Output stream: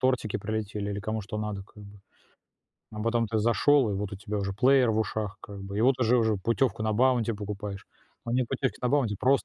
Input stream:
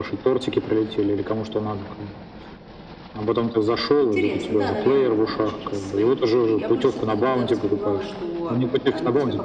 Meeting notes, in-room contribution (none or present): present